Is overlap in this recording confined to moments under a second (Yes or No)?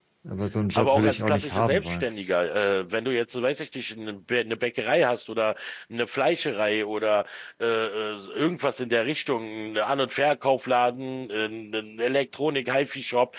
No